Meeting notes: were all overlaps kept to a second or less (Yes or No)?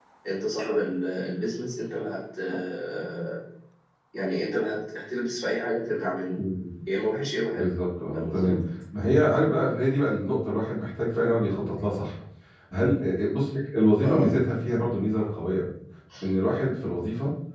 Yes